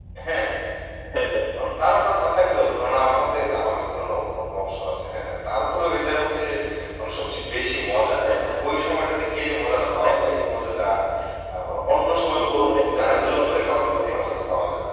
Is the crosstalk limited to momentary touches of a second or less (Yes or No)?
No